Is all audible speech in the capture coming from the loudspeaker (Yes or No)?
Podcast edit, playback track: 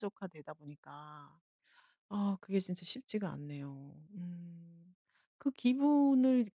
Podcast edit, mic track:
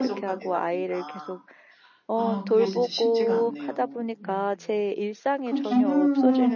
No